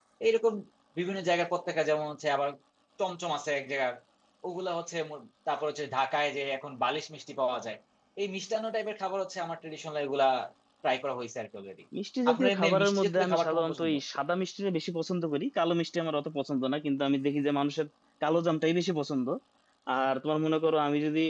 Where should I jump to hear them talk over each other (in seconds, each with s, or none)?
12.3 s